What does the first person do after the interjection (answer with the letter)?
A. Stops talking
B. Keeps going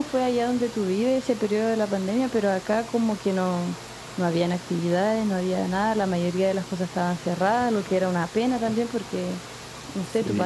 B